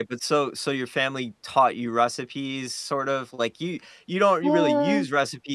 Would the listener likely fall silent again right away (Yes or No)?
Yes